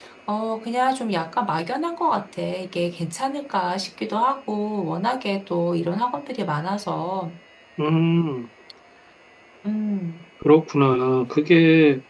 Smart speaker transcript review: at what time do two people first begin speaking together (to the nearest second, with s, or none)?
none